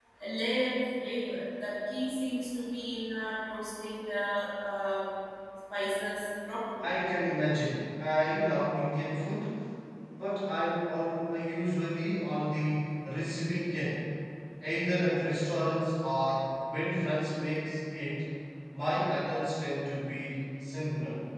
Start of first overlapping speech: none

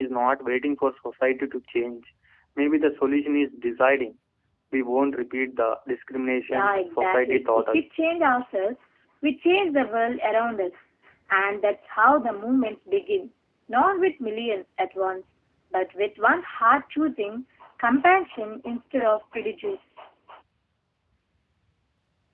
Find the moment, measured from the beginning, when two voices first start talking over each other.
6.5 s

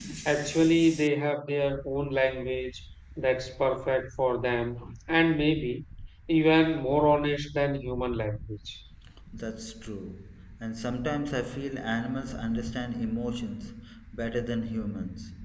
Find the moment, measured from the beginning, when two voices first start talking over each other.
none

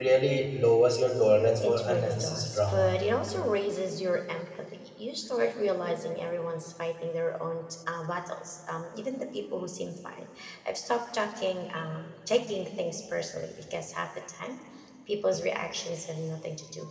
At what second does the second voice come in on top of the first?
1.6 s

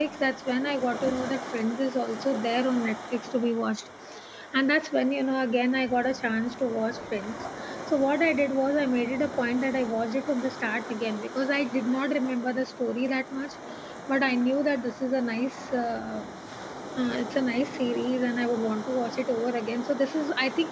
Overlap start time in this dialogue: none

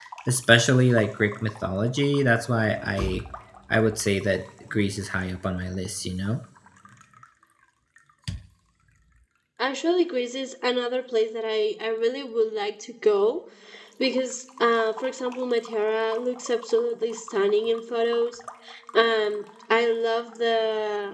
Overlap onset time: none

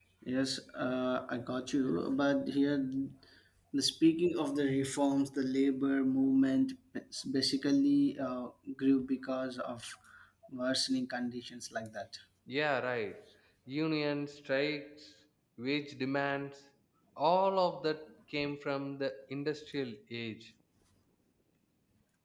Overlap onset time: none

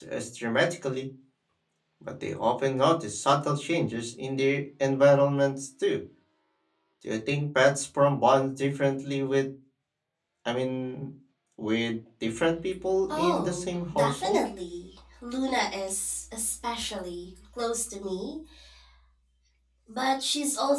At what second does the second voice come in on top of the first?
13.1 s

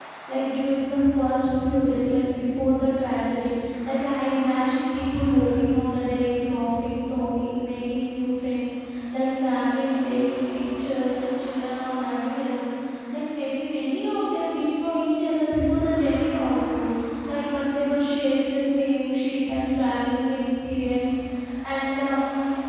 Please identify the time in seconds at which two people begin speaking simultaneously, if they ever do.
none

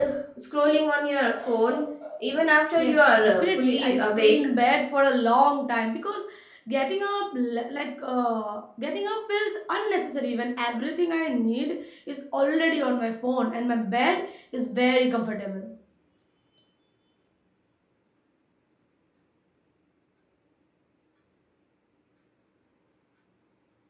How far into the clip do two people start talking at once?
2.8 s

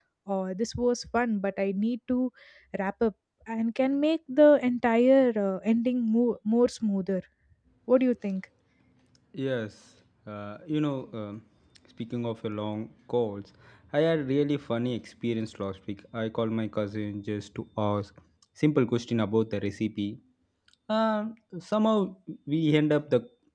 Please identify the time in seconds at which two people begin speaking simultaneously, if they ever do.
none

